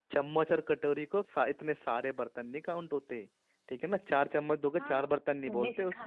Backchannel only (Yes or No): No